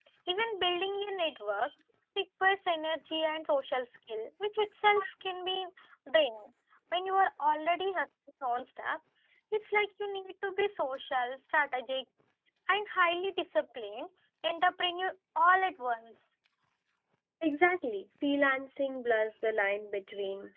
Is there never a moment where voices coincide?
Yes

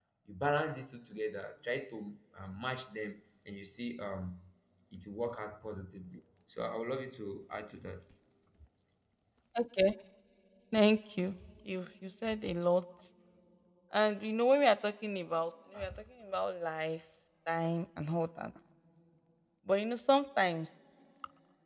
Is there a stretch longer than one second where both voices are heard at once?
No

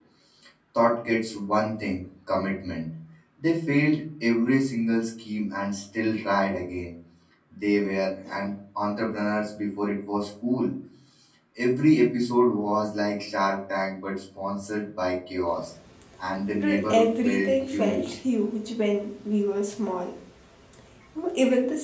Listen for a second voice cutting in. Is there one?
Yes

